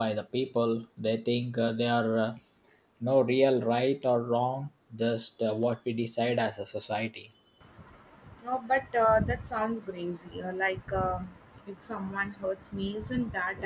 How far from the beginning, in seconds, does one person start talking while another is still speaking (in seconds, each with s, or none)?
none